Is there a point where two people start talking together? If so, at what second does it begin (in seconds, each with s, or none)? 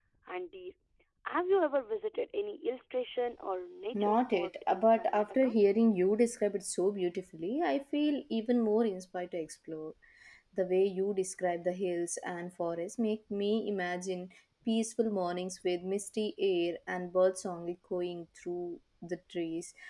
3.9 s